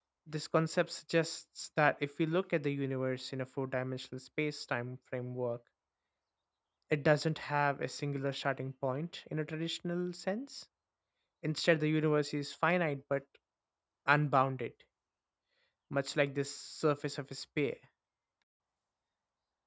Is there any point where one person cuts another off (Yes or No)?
No